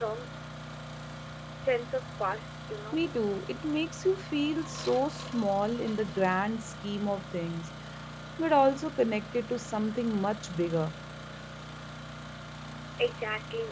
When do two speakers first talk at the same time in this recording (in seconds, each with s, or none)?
none